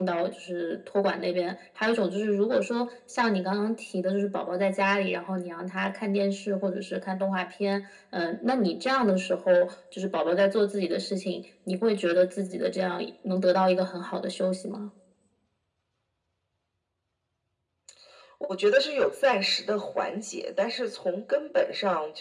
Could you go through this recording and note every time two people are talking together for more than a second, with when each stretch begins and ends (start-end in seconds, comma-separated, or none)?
none